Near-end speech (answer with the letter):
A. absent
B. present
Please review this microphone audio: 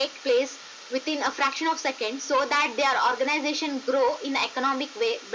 A